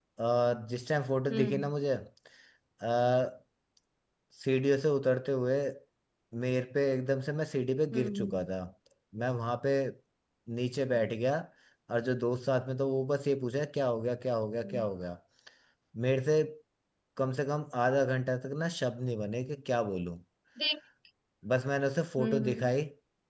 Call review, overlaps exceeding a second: none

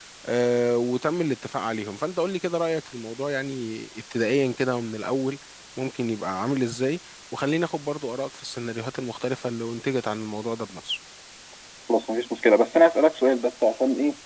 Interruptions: none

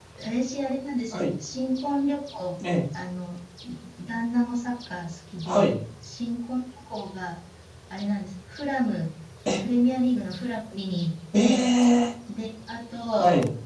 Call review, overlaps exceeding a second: none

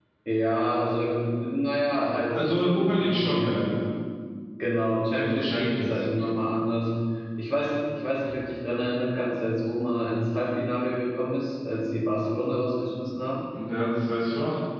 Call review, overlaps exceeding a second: present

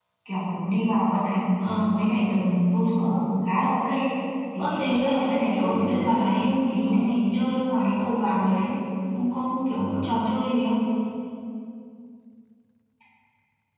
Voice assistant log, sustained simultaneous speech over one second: present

